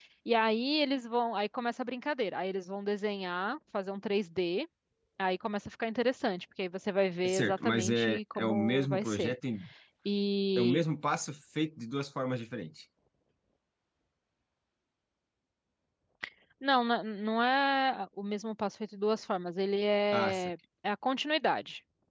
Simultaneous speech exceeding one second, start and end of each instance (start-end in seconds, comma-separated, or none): 7.2-9.3